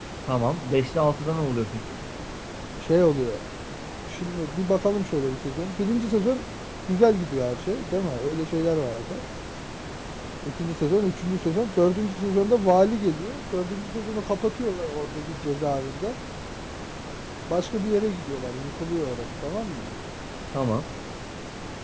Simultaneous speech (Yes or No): No